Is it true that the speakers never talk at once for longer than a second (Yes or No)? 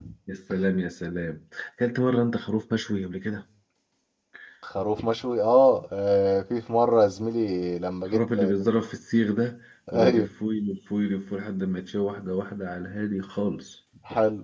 Yes